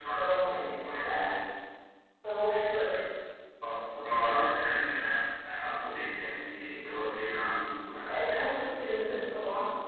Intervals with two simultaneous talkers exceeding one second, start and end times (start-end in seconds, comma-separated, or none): none